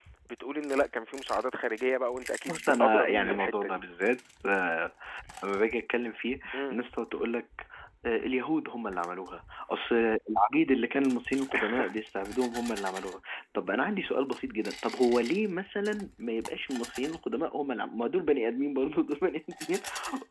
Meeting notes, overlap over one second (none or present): present